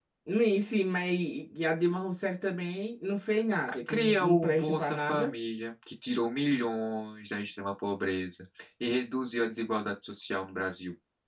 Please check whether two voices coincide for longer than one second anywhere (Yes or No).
Yes